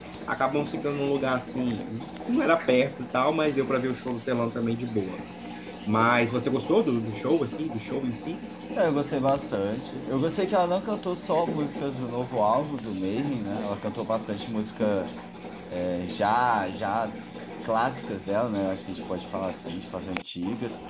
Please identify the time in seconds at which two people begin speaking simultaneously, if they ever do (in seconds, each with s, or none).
none